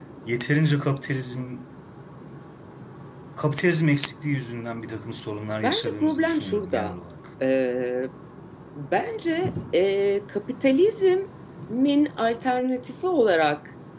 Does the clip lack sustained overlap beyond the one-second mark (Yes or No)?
No